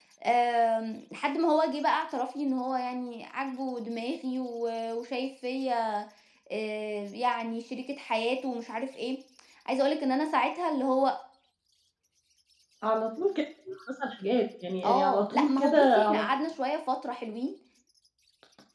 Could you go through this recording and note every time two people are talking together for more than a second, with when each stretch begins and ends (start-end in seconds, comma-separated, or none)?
14.8-16.3